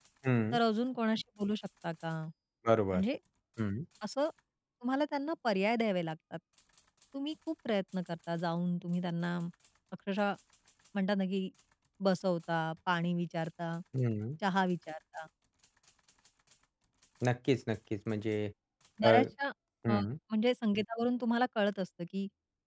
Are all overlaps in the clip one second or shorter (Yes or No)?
Yes